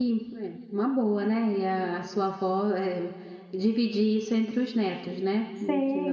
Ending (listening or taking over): taking over